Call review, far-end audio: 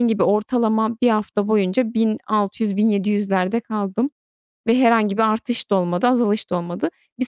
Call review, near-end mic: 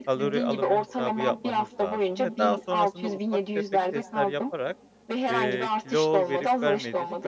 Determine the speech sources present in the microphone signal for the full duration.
both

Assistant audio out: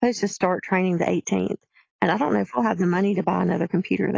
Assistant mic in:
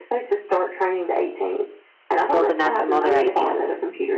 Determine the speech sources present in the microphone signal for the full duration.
both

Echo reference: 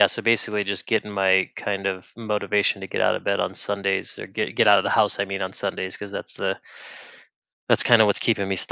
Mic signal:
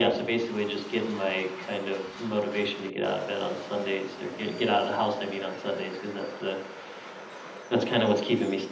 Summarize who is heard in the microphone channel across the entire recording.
echo only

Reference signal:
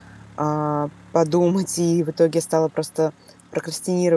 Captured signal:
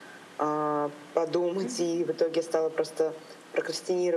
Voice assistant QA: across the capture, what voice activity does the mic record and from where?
both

